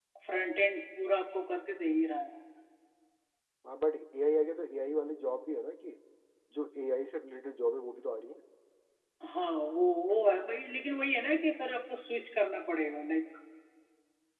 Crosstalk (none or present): none